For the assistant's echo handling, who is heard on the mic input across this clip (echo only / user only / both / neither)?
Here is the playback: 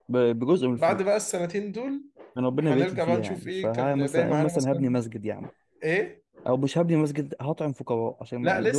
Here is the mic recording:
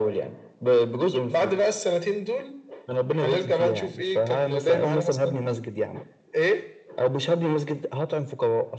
echo only